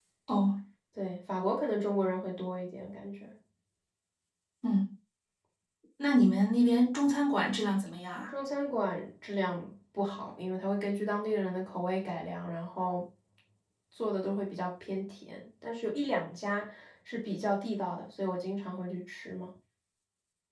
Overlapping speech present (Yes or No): No